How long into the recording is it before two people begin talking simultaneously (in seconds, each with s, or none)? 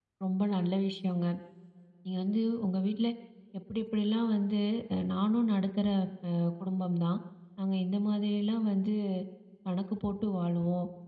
none